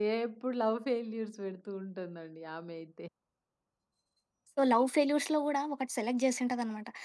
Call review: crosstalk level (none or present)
none